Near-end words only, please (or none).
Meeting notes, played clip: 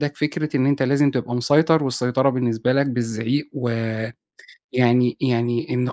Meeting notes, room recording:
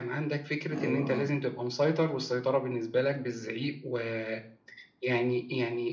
أيوه، آه.